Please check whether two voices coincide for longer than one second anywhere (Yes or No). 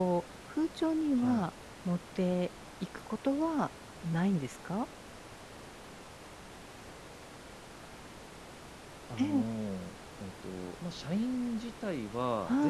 No